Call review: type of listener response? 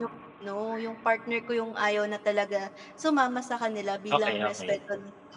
listening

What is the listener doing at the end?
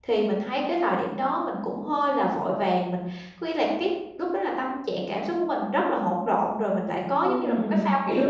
taking over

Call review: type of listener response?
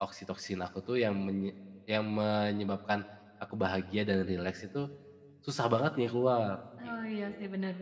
taking over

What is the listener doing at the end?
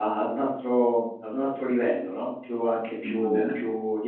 listening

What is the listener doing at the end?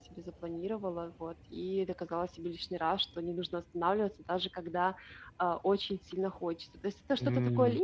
listening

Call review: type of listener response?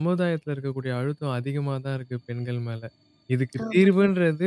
listening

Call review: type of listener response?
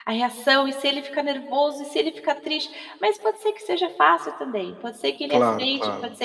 listening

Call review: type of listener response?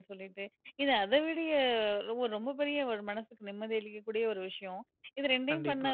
listening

